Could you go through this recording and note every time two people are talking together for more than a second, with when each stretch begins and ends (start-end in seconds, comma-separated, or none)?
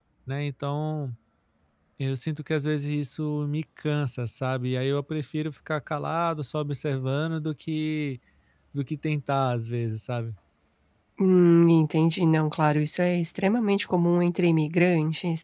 none